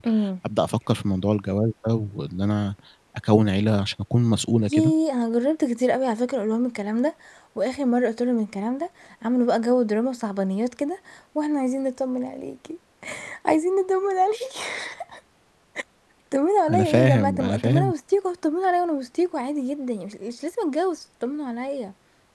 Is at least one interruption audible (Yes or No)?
Yes